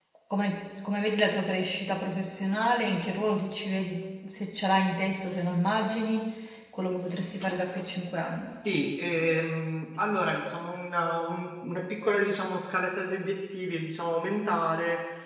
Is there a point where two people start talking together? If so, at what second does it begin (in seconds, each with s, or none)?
none